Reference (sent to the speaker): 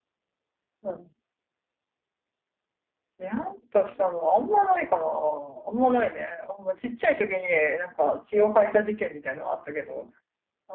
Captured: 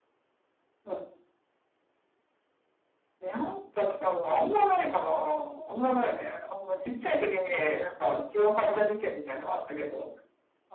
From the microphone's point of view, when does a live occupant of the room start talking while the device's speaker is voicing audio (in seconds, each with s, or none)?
none